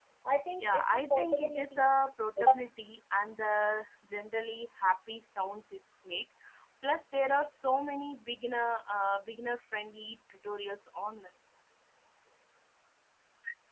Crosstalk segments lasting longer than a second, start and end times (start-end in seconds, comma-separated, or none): 0.6-1.8